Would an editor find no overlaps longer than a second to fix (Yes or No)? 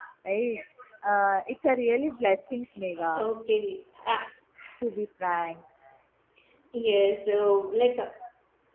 Yes